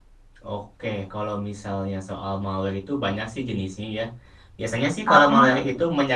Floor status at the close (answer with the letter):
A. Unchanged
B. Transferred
A